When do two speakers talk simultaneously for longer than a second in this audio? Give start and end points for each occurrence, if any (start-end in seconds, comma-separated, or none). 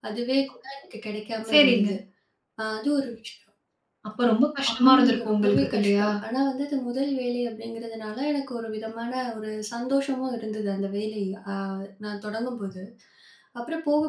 4.8-6.1